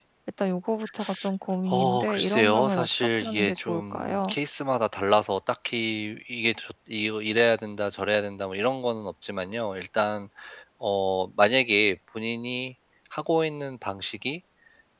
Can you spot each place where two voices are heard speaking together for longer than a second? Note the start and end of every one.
1.7-4.3

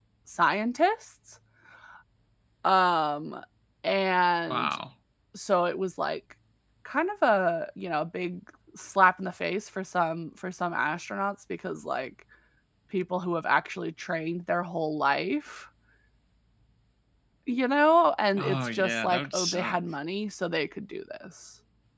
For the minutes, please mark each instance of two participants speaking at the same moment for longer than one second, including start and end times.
18.4-19.8

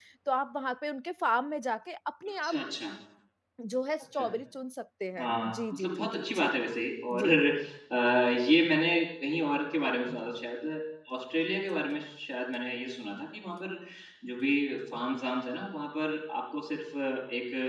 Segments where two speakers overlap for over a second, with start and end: 5.2-6.5

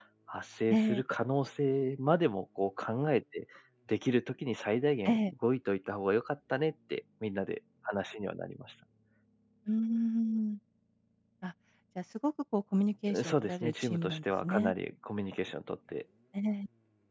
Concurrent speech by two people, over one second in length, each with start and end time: 13.2-14.7

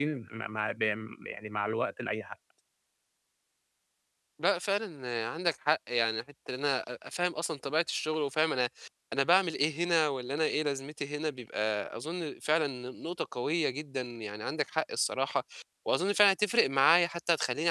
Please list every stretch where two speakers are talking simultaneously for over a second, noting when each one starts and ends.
none

